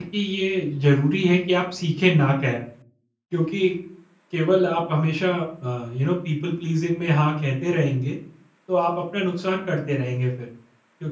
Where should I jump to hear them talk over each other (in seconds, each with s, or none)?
none